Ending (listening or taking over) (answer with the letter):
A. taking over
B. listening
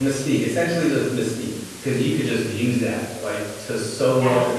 B